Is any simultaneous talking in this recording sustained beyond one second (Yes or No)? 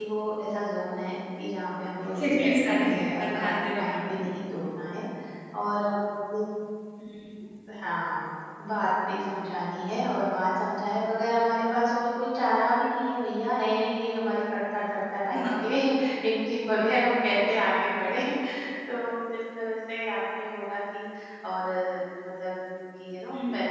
Yes